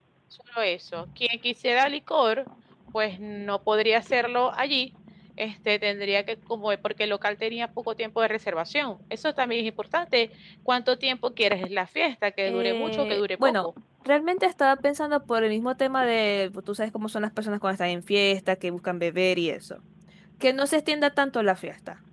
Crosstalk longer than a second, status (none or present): present